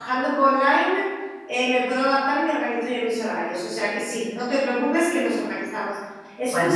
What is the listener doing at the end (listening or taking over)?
listening